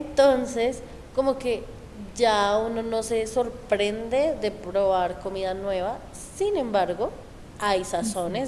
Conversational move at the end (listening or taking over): listening